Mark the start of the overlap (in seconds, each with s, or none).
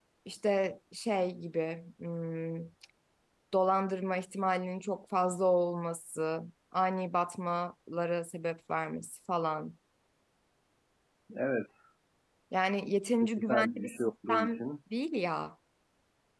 13.4 s